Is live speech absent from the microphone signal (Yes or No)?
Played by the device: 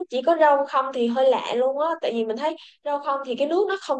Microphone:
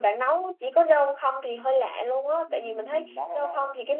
No